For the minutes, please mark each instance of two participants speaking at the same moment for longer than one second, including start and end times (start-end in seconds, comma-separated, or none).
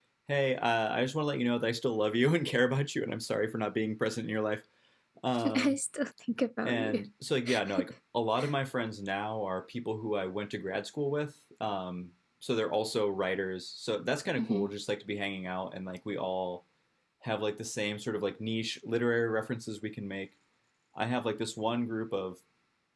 none